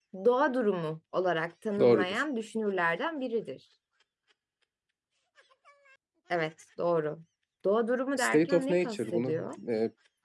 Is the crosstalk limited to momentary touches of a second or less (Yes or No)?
No